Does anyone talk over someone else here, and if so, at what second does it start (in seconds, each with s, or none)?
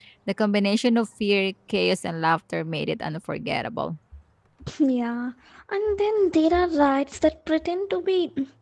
none